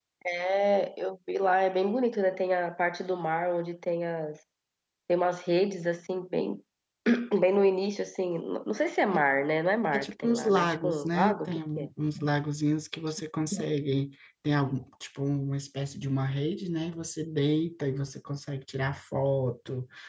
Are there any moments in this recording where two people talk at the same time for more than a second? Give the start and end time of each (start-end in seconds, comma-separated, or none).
9.9-11.9